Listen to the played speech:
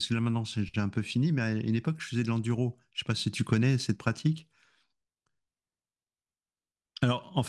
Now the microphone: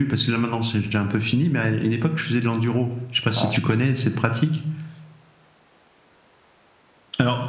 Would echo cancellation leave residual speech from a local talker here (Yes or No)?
Yes